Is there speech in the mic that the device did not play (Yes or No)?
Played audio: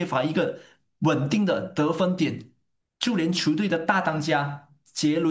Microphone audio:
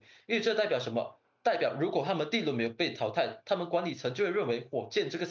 Yes